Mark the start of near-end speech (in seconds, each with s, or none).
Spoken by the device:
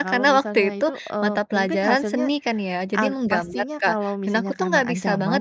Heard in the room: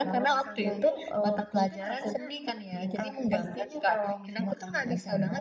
none